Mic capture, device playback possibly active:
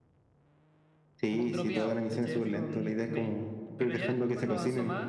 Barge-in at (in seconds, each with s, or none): 1.3 s